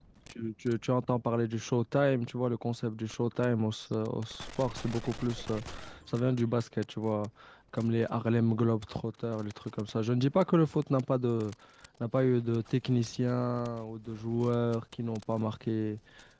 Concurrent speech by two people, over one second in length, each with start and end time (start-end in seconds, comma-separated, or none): none